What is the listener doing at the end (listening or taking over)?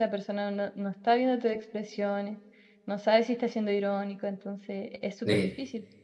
taking over